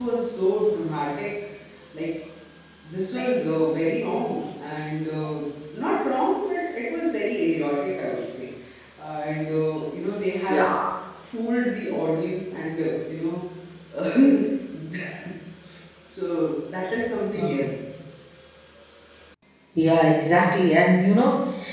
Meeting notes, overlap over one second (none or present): none